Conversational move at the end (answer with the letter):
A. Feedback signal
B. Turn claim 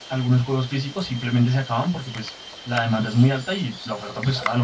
A